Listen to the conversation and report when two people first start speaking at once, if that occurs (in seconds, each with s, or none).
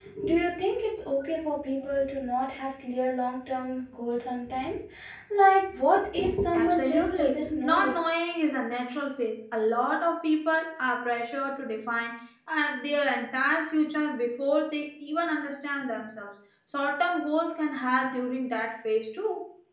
6.5 s